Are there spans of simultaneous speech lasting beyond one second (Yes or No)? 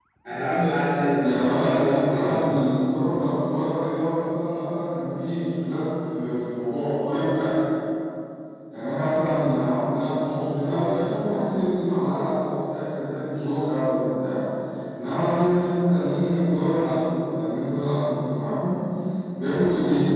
Yes